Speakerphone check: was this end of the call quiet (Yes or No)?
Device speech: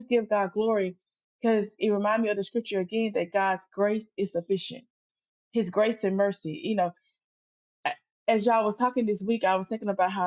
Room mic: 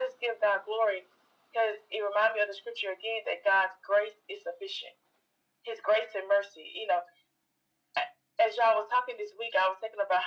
Yes